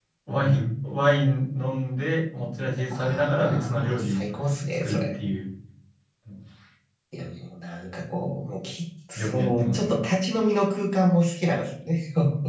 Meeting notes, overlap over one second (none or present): present